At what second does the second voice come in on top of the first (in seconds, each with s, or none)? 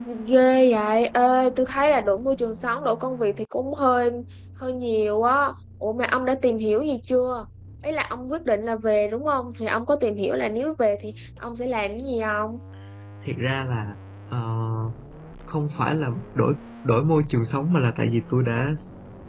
none